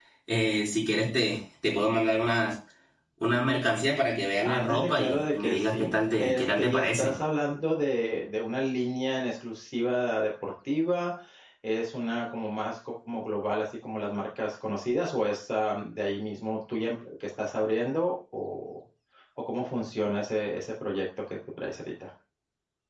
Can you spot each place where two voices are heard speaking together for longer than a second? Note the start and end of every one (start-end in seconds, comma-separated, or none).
4.4-7.1